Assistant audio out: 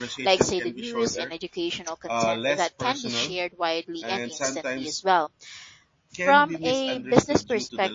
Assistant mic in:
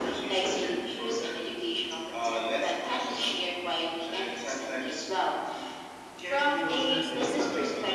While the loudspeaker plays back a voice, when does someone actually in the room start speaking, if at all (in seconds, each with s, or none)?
6.5 s